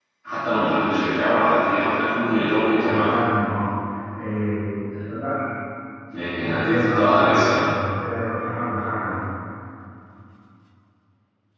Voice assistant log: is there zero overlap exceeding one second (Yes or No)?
No